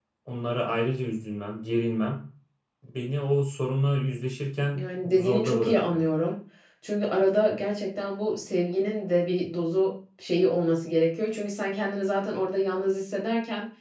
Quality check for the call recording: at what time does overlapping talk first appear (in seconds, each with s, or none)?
4.8 s